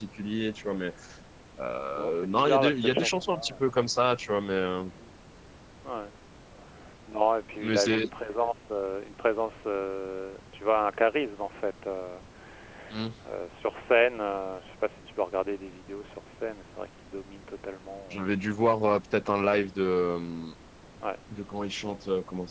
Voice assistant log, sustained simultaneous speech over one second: present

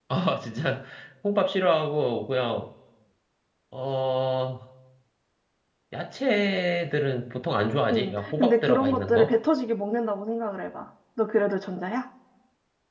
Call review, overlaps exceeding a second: present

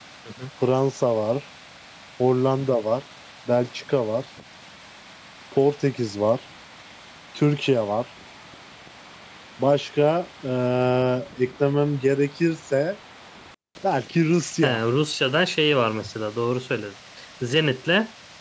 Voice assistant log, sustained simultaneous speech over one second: none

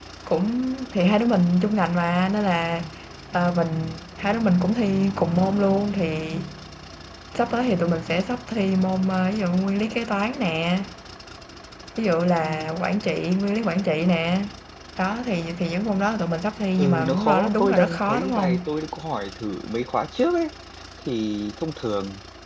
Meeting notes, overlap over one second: present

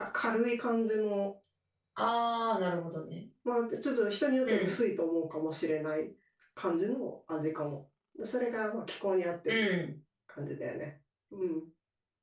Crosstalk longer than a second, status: none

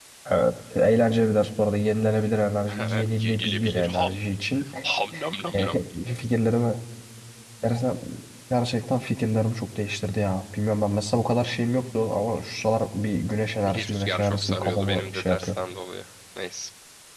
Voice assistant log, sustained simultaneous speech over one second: present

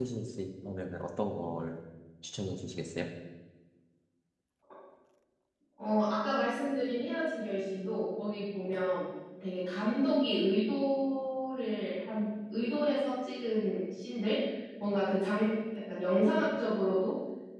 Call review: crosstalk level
none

